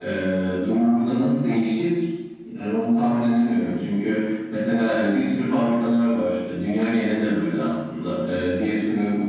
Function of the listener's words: listening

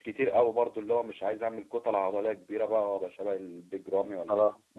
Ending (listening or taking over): taking over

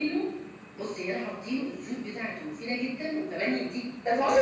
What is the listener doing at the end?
taking over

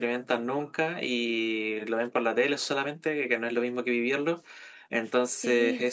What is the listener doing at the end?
listening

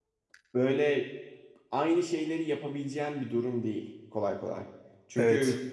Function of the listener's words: listening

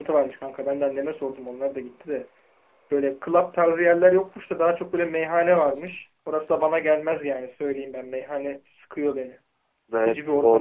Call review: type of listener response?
taking over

